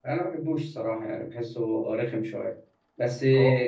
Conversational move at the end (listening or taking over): listening